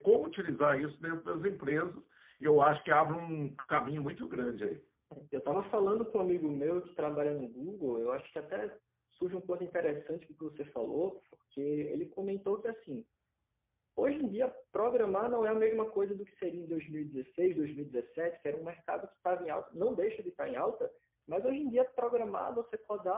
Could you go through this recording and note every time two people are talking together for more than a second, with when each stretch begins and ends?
none

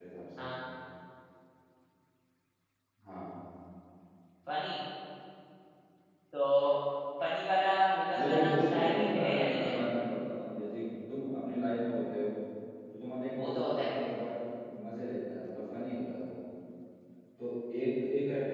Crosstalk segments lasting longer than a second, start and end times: 8.2-9.8

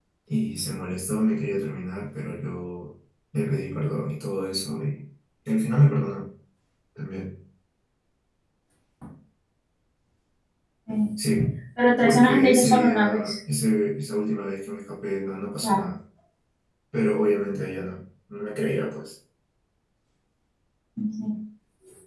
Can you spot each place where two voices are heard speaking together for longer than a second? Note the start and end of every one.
12.0-13.4

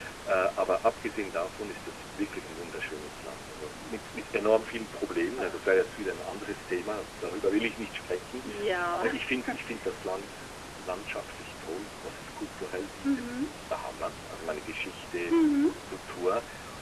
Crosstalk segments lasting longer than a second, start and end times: none

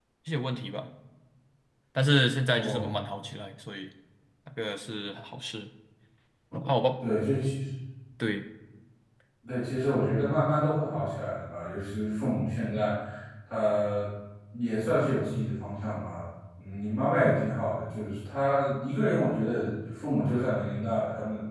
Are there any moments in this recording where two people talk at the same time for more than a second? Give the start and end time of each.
none

